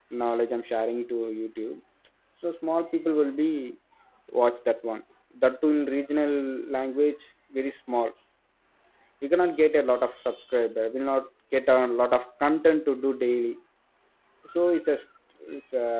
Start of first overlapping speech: none

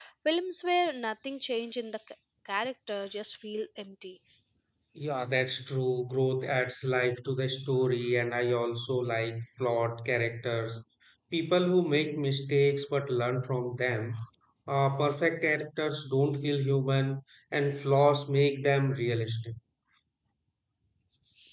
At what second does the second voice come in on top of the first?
none

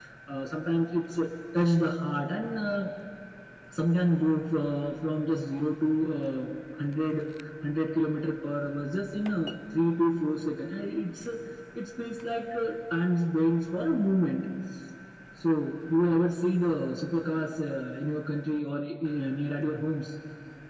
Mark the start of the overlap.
none

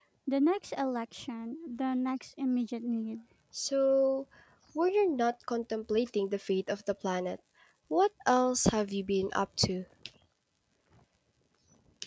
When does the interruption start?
none

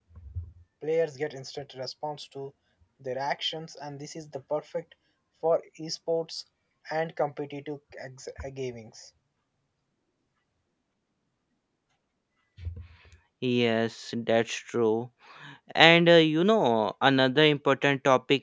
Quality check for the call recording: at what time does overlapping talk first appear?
none

